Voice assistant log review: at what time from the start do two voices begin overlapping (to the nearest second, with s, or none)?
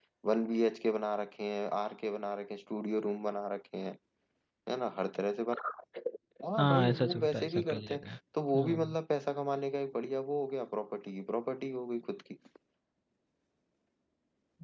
7 s